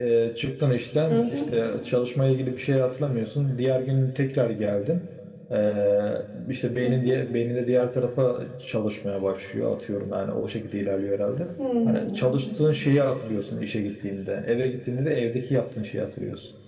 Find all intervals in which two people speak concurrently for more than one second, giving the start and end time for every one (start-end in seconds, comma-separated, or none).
none